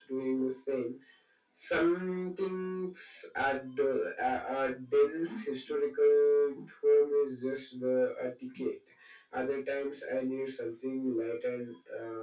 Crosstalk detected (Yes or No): No